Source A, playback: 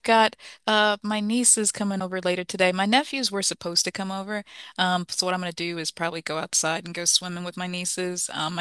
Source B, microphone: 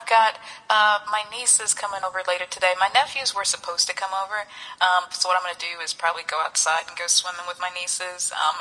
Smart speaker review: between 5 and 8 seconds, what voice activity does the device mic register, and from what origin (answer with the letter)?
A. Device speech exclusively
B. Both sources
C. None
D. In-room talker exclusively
A